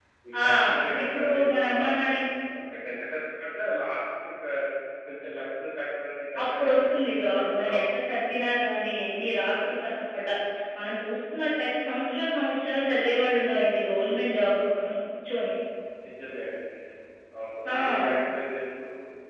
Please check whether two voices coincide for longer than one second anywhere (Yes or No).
Yes